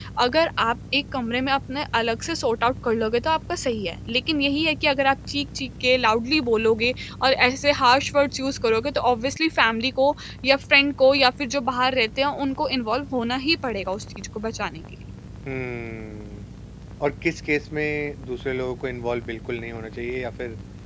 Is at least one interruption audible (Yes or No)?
No